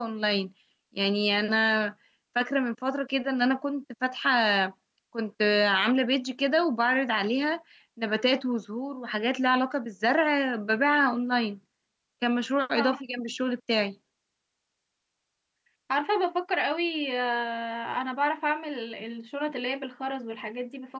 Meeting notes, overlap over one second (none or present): none